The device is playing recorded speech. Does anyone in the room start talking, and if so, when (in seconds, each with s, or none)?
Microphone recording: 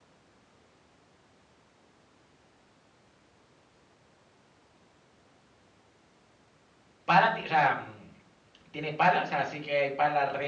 7.0 s